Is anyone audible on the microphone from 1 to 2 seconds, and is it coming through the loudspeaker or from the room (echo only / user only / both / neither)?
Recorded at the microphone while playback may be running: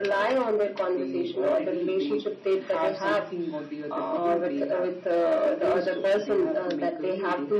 echo only